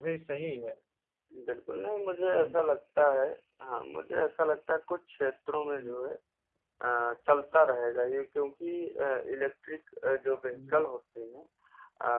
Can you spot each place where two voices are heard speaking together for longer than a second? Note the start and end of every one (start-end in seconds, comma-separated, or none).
none